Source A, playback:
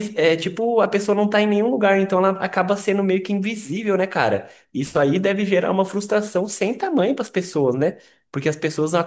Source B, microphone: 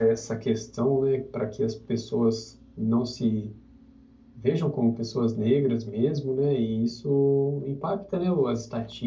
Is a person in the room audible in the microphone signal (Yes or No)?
Yes